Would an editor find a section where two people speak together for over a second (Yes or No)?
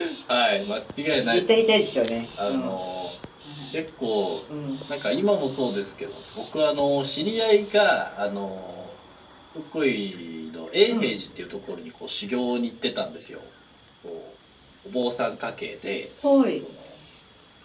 No